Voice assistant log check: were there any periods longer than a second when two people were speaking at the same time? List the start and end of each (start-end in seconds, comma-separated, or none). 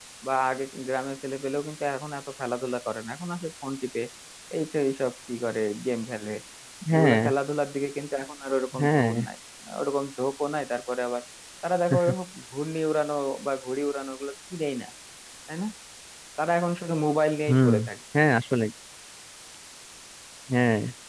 none